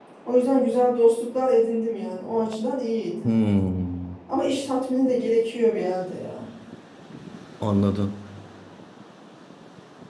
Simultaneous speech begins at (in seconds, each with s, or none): none